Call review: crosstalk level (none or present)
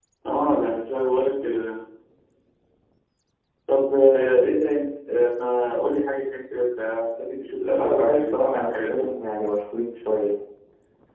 present